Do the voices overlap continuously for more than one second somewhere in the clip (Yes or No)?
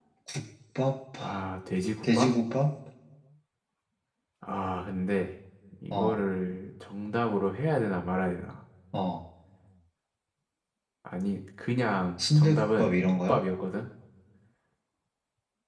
Yes